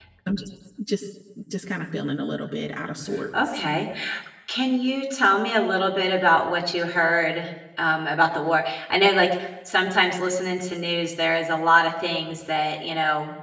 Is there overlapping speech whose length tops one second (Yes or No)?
No